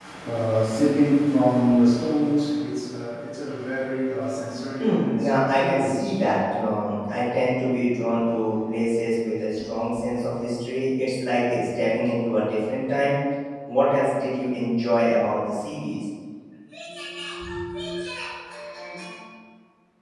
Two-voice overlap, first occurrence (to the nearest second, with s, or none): 5 s